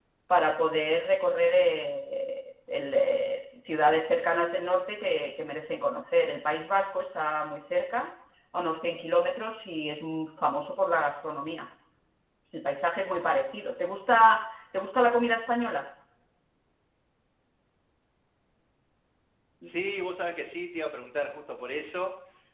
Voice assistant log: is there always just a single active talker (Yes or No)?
Yes